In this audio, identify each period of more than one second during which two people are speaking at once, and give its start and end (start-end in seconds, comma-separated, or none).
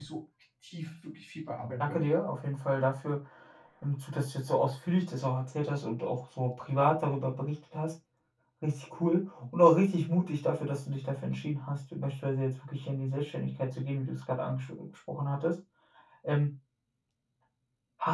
none